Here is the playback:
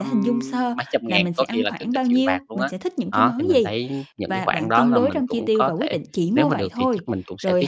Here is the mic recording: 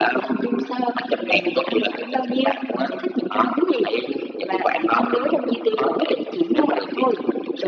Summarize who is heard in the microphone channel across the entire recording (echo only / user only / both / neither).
echo only